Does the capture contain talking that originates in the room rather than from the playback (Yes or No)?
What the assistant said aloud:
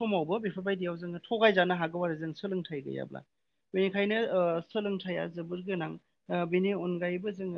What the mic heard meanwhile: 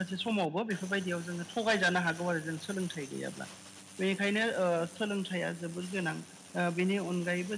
No